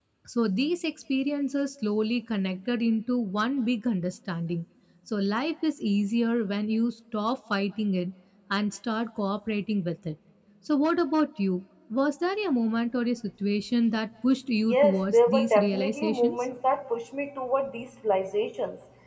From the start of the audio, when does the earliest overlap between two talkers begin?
14.6 s

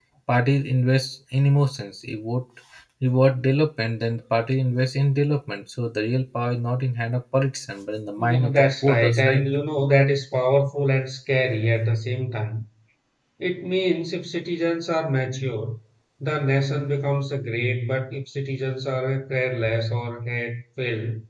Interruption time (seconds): 8.2 s

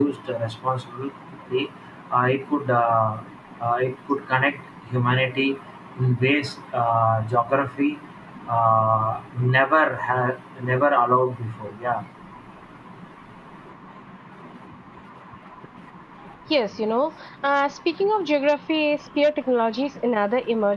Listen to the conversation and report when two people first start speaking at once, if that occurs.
none

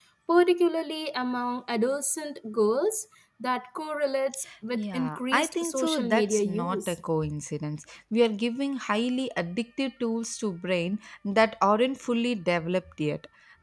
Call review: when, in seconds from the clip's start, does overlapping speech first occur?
4.7 s

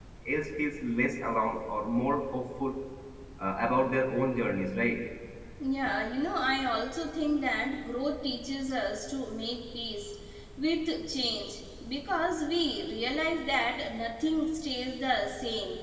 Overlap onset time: none

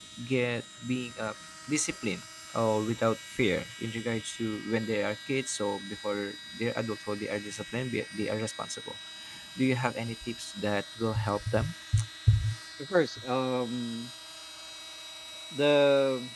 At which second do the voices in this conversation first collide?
none

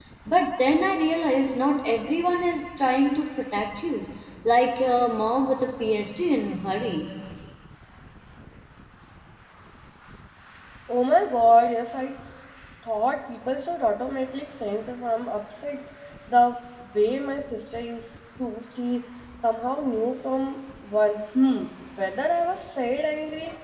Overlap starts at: none

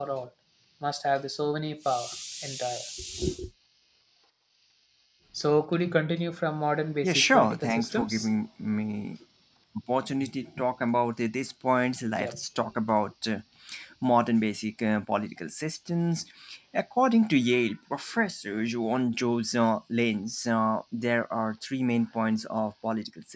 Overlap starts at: 7.0 s

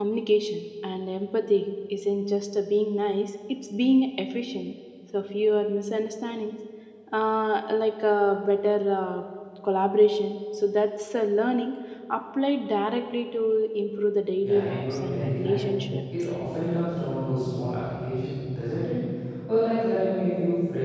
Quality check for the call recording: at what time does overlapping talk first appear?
14.4 s

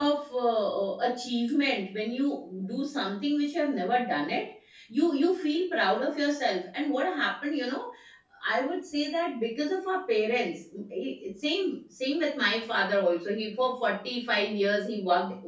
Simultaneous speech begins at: none

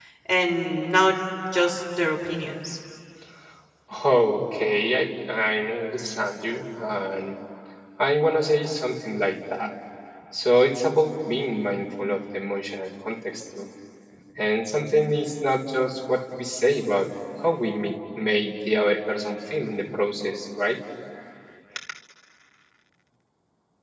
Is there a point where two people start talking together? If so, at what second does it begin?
none

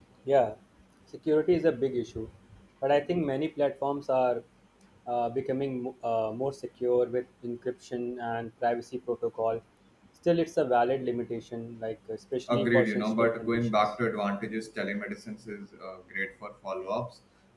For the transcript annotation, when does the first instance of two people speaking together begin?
12.5 s

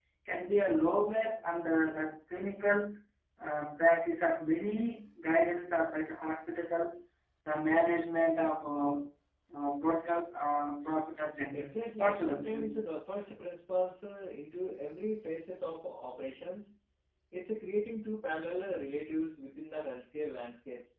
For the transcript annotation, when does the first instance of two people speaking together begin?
11.5 s

